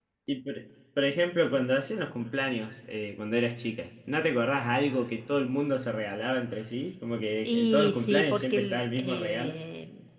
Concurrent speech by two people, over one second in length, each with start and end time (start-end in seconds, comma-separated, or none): 7.5-9.6